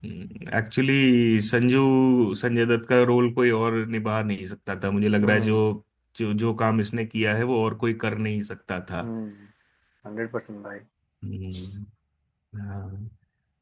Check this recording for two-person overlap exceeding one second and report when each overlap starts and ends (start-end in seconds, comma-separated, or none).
none